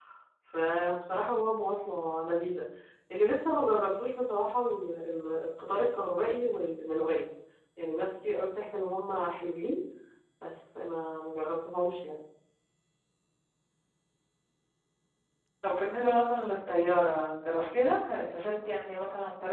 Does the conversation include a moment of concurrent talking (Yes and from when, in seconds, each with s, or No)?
No